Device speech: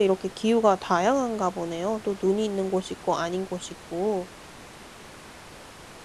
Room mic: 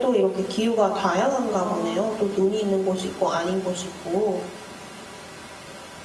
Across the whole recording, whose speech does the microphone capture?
both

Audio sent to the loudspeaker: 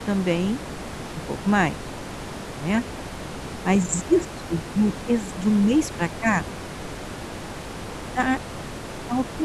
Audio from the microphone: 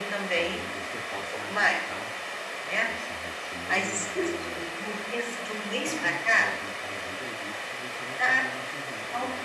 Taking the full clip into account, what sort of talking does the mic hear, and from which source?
both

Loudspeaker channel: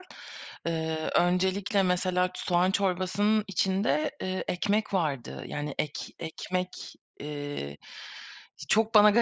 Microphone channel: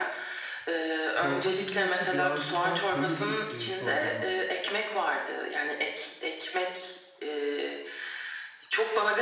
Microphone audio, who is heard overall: both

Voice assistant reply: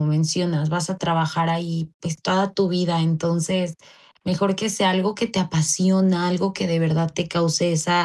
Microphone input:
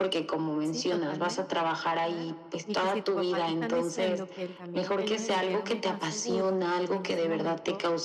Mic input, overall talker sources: both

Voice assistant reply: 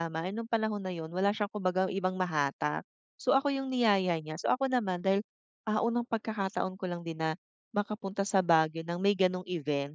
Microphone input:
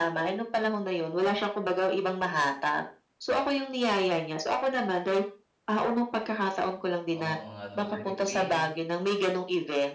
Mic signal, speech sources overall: both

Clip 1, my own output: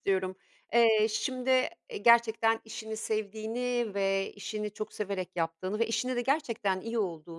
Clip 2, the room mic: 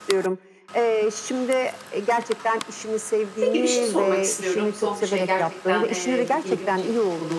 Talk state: both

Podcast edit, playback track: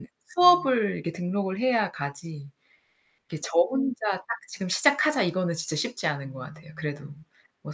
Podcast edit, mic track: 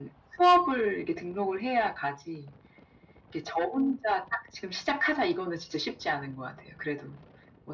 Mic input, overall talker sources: echo only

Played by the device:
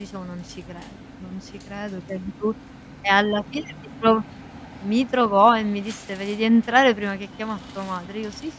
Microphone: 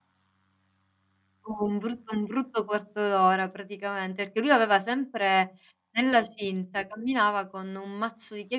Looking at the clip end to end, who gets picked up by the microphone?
user only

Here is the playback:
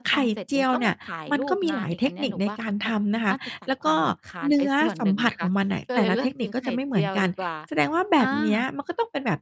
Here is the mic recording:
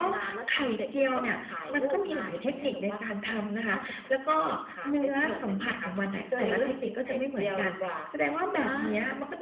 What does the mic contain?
echo only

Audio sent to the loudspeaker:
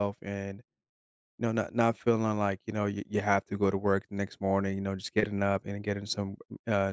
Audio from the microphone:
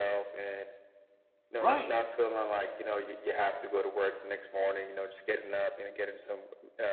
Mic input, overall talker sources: both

